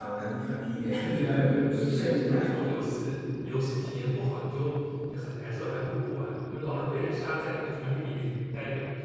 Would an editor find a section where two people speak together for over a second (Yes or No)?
Yes